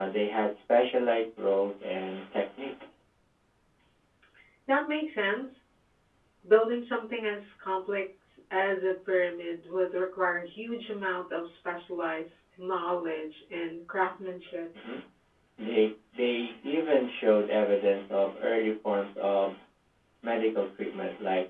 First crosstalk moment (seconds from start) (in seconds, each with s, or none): none